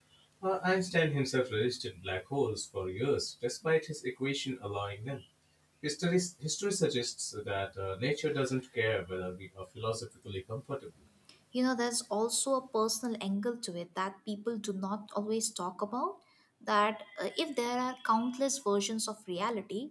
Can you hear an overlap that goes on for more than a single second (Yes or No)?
No